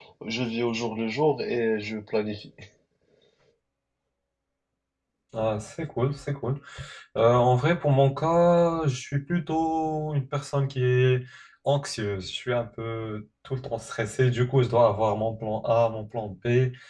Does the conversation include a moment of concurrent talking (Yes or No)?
No